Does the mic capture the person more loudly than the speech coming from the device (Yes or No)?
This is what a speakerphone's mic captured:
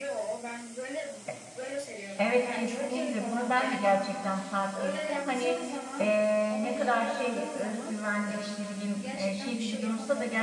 Yes